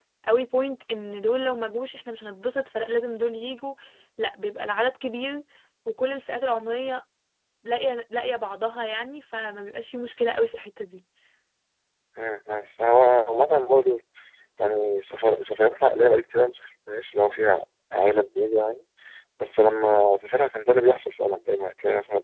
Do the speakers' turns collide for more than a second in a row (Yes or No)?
No